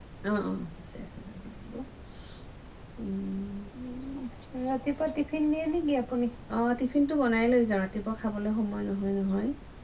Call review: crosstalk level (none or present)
none